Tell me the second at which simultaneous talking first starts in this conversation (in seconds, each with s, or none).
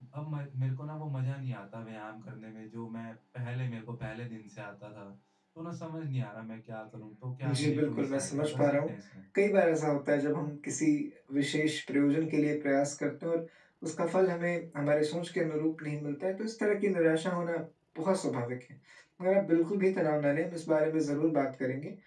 7.4 s